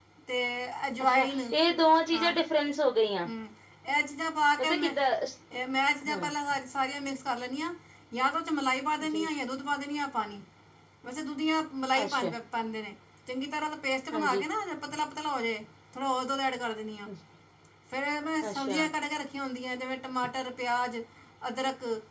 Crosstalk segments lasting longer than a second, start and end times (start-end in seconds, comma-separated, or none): none